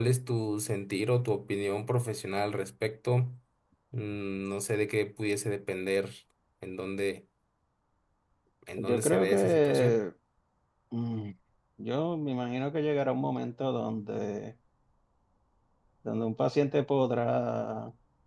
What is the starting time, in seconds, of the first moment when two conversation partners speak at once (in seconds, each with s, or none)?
8.8 s